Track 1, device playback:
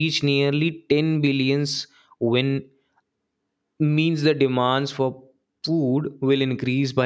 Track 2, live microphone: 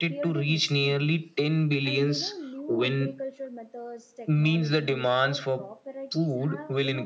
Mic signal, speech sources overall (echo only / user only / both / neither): both